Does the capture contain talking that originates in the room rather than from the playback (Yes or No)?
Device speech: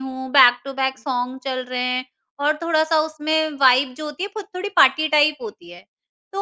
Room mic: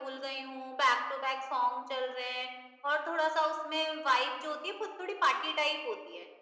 No